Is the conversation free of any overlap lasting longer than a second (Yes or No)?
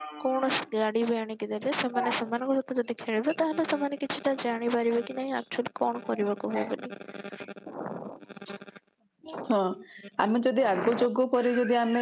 Yes